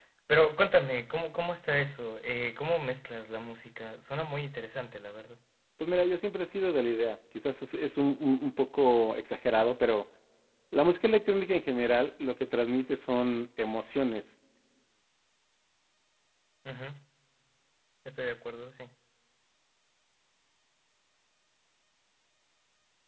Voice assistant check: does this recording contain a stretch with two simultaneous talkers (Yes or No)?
No